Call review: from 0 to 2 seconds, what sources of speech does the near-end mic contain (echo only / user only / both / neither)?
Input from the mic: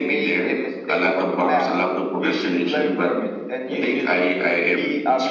echo only